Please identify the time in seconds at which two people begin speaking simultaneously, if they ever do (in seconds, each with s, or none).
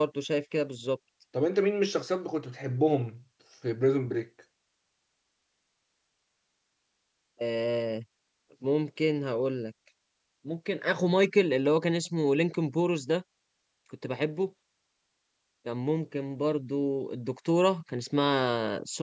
none